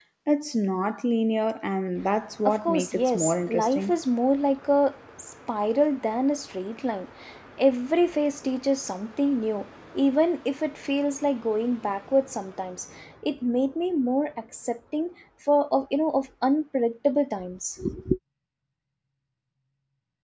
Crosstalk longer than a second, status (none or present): present